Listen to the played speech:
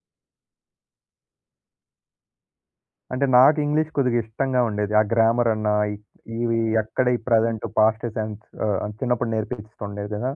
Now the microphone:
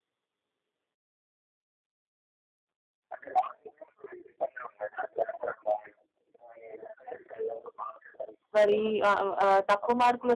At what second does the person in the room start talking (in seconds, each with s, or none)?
8.6 s